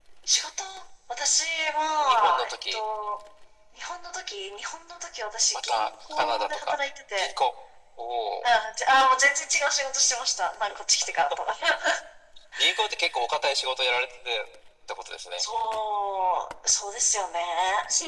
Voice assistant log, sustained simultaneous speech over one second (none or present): present